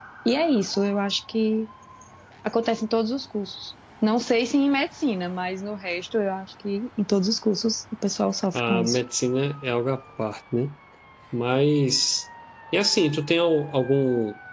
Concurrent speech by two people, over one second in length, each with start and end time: none

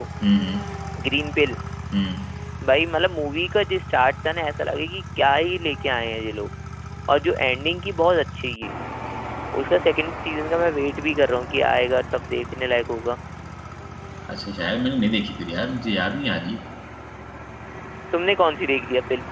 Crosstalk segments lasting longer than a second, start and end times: none

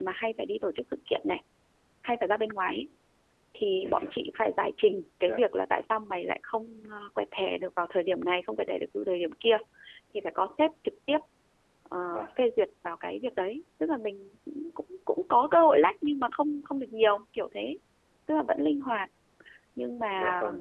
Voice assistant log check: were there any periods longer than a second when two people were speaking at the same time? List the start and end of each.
none

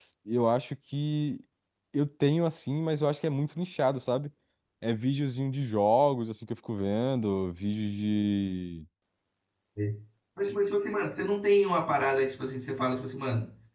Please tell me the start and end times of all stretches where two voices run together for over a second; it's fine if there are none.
none

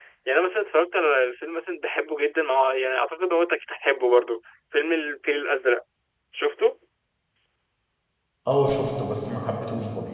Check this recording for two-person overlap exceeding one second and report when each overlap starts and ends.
none

